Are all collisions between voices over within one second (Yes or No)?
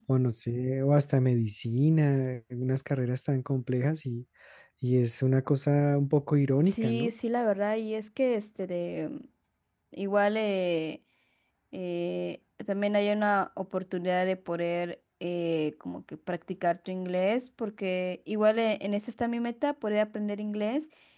Yes